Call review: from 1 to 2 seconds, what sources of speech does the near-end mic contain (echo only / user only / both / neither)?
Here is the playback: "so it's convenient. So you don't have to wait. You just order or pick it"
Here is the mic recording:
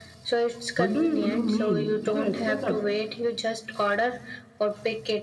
both